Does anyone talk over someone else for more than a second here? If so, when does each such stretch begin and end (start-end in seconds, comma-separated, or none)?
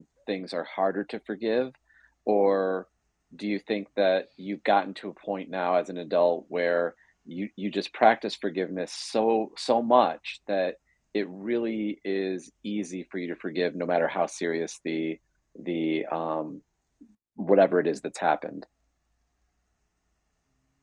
none